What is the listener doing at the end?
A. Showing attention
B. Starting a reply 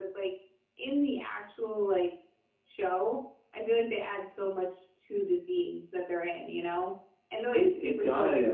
B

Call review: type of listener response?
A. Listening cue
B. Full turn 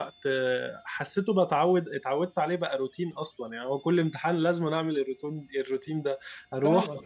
A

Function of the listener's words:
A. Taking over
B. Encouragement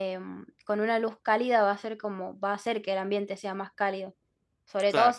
B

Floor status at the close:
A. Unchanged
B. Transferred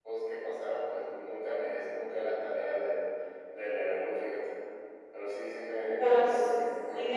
B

